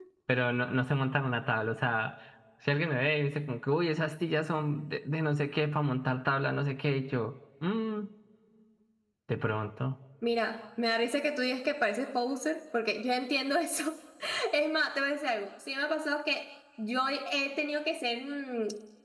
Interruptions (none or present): none